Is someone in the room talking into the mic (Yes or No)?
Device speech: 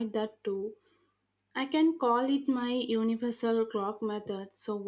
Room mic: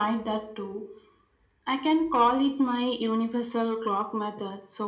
No